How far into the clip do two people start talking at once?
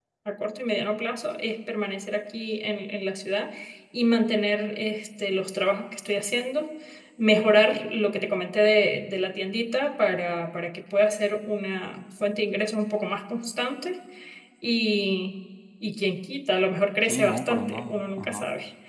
17.0 s

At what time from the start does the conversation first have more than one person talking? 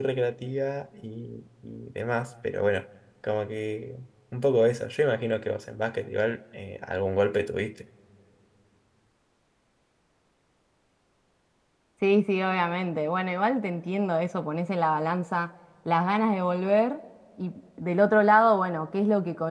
none

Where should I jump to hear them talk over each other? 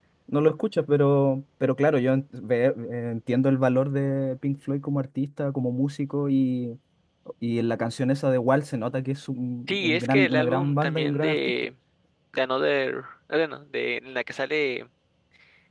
9.7 s

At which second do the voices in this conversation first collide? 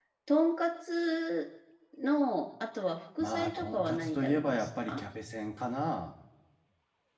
3.2 s

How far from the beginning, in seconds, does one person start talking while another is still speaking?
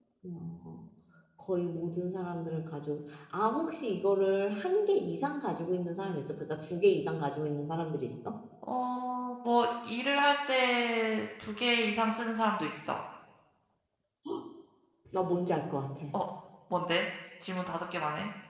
none

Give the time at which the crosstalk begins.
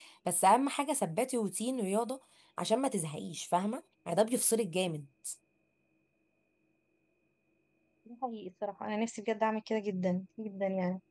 none

